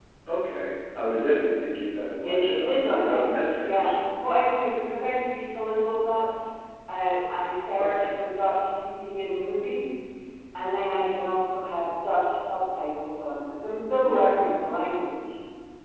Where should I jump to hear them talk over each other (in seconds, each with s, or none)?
2.2 s